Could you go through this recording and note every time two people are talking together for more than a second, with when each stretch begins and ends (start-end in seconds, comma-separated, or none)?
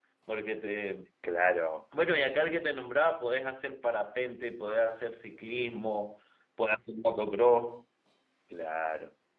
none